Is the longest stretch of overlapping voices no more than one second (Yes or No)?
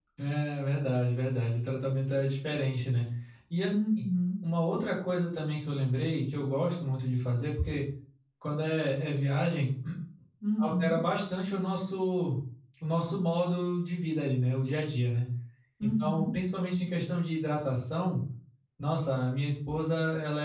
Yes